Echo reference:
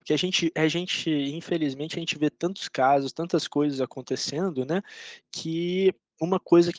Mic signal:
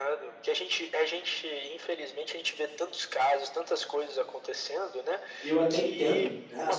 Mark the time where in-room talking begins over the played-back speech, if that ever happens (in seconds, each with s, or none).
5.4 s